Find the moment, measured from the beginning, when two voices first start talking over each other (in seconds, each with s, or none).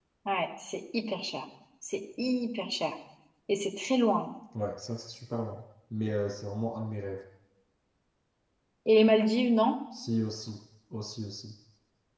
none